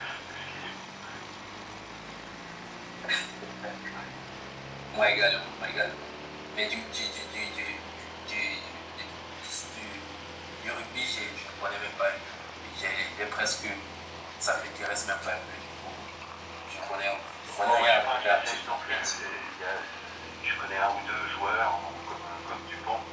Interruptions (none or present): present